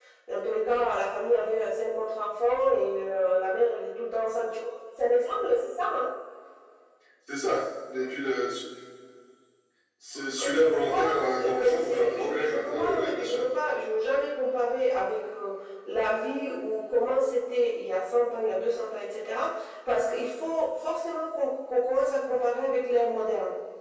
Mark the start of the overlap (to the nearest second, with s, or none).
10 s